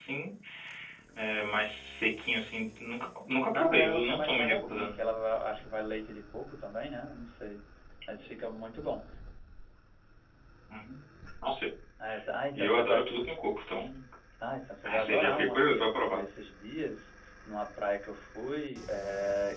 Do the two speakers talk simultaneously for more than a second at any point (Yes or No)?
Yes